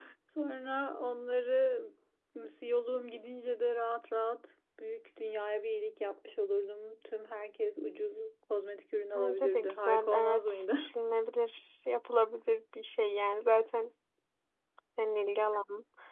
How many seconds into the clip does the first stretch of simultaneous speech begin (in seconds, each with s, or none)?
9.2 s